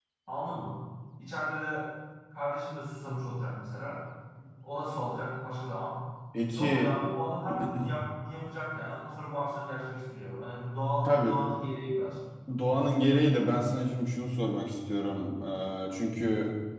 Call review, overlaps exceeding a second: none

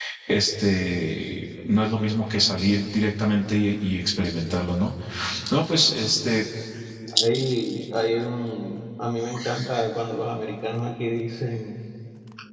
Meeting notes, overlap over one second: none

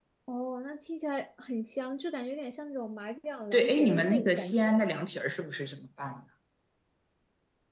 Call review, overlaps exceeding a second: present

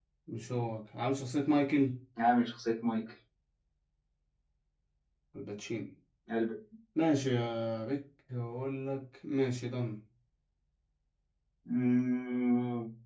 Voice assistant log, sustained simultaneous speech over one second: none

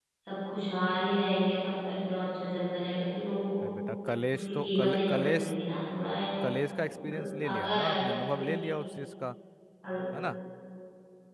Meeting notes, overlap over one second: present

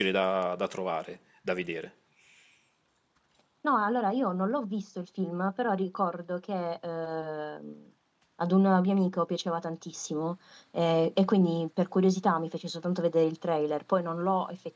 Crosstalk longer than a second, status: none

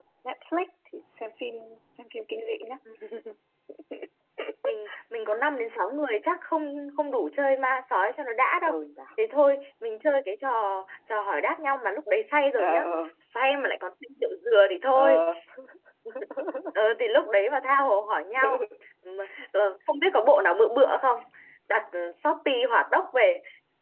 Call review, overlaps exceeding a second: none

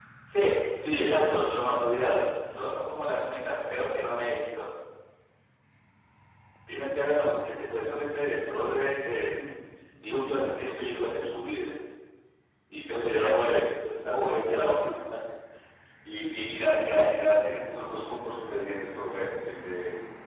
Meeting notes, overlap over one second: none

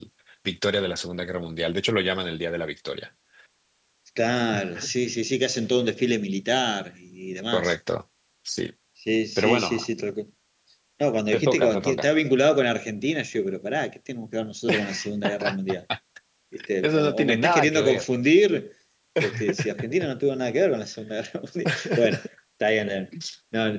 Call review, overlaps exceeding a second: present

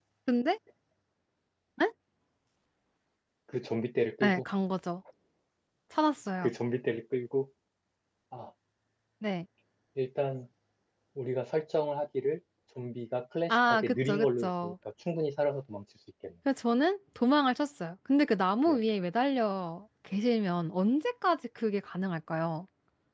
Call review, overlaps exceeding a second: present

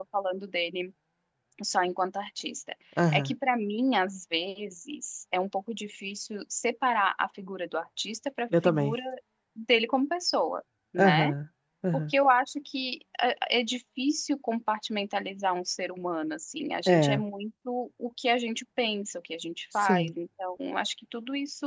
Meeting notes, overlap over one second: none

